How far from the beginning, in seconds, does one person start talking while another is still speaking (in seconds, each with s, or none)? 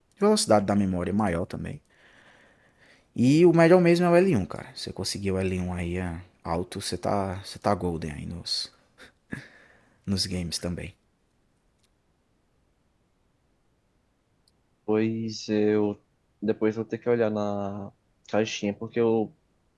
none